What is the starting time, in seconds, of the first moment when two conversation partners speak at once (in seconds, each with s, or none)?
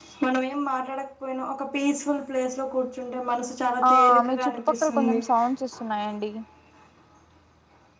3.8 s